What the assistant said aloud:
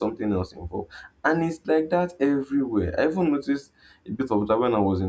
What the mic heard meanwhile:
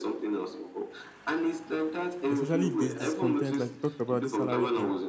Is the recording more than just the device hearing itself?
Yes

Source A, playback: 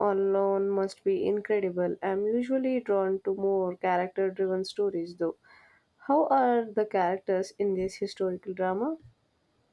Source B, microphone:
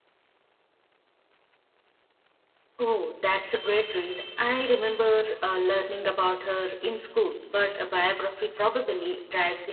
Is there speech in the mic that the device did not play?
Yes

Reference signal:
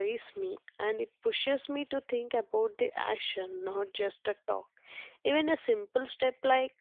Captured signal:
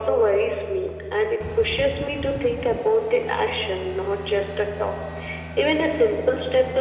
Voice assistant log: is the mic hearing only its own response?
Yes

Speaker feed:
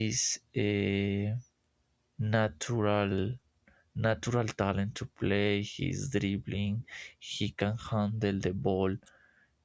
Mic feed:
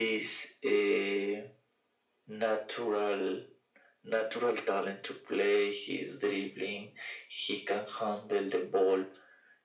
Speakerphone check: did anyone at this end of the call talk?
No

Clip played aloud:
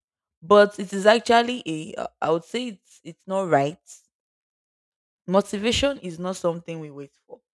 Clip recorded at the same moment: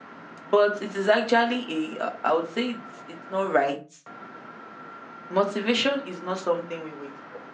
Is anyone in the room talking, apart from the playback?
No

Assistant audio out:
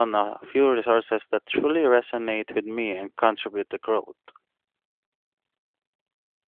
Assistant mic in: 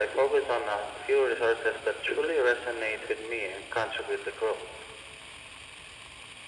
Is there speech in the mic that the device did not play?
No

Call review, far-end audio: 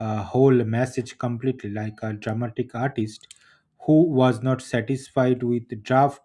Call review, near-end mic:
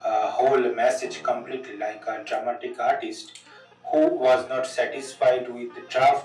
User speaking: No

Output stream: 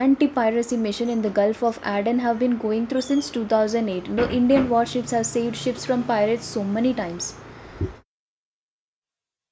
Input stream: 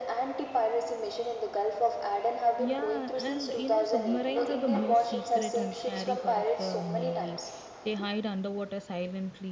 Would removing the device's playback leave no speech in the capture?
No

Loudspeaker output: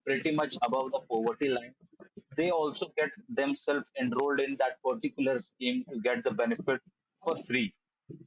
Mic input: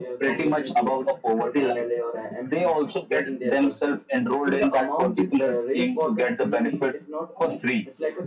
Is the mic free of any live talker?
No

